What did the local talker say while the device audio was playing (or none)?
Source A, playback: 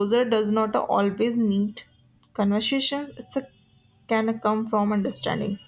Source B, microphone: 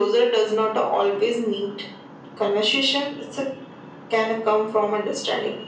none